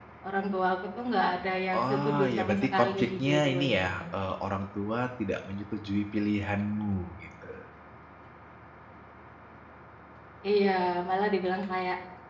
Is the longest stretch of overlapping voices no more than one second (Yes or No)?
No